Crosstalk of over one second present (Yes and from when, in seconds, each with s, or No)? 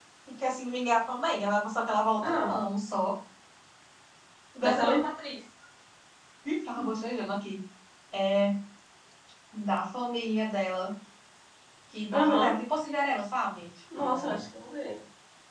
No